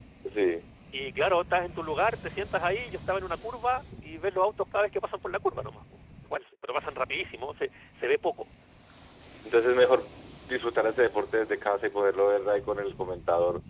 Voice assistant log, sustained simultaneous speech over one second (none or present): none